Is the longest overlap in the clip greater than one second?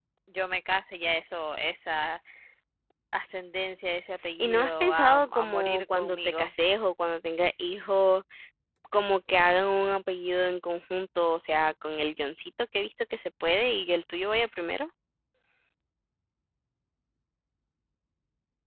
Yes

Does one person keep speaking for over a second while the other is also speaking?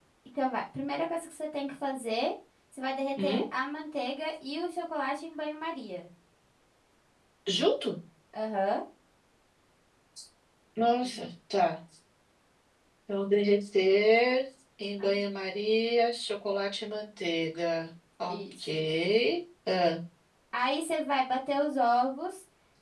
No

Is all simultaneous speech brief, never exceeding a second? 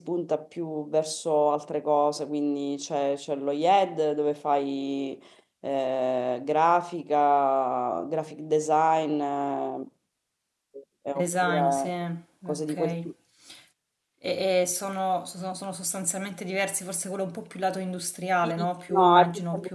No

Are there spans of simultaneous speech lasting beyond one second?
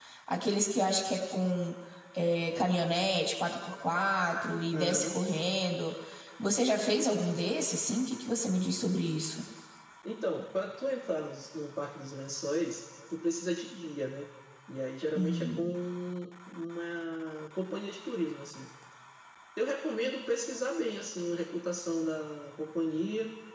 No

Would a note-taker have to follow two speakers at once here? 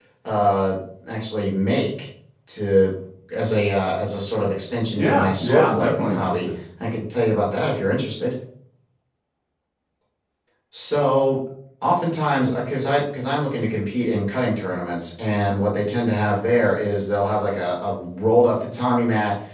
Yes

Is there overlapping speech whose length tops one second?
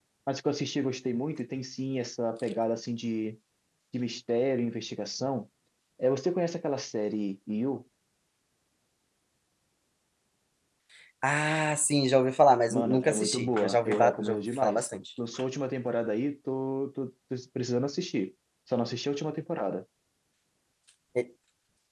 Yes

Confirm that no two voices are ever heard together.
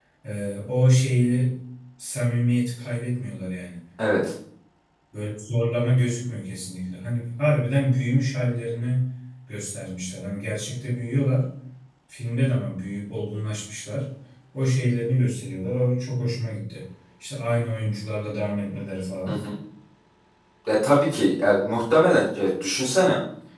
Yes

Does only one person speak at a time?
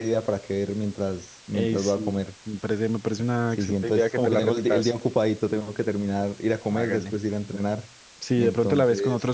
No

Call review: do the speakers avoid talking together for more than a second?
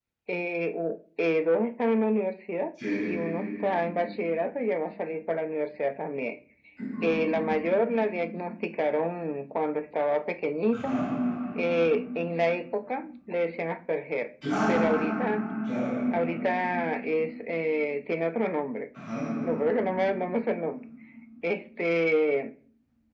Yes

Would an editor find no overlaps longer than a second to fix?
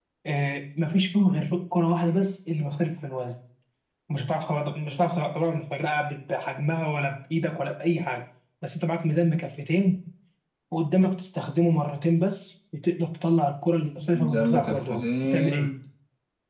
No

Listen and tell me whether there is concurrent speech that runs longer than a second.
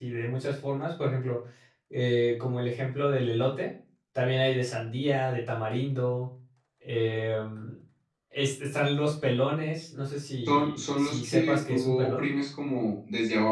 Yes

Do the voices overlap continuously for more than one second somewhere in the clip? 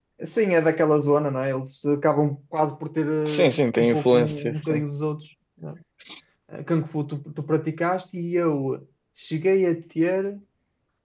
Yes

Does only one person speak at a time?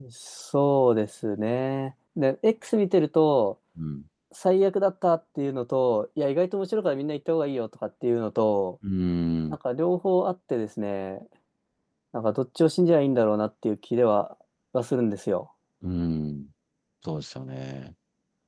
Yes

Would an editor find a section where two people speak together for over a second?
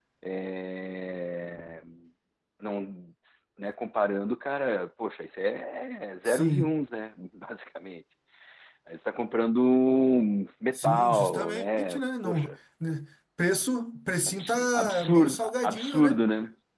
Yes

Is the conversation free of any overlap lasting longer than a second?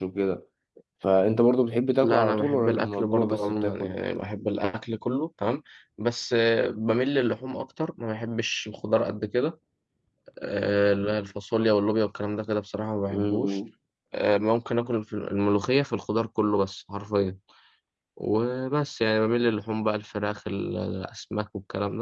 No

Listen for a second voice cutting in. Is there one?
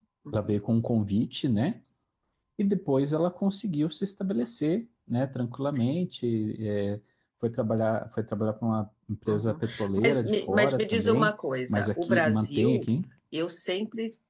Yes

